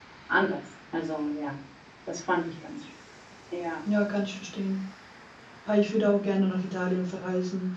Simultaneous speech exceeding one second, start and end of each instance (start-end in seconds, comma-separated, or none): none